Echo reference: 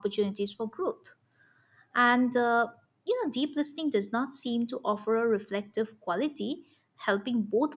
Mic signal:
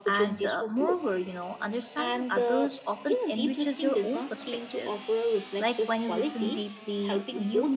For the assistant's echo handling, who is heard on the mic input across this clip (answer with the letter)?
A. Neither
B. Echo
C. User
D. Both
D